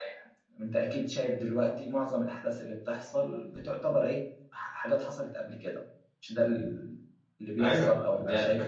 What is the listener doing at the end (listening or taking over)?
taking over